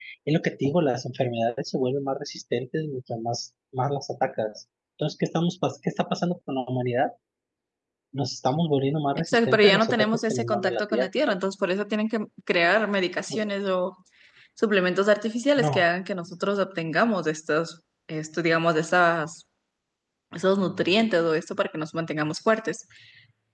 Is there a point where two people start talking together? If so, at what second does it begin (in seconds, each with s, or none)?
9.2 s